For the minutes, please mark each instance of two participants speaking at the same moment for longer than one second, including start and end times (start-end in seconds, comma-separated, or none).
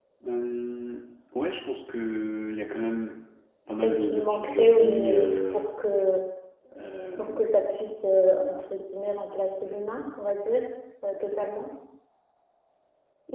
3.8-5.6